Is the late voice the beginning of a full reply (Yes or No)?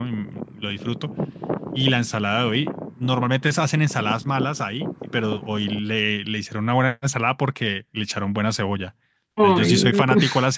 No